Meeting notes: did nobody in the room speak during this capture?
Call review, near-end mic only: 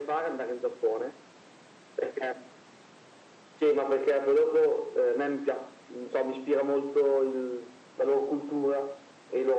Yes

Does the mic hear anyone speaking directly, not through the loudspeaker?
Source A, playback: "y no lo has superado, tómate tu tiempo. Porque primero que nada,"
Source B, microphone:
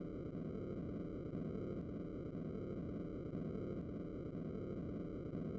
No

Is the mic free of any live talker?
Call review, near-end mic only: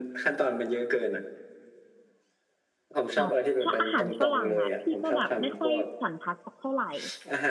No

